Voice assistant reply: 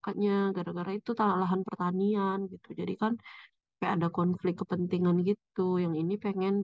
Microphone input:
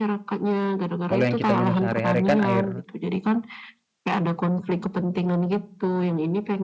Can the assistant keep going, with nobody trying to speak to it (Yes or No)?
No